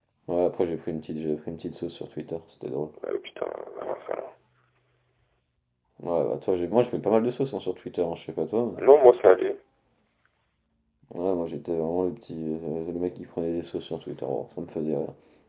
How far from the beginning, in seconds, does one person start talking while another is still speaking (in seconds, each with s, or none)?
none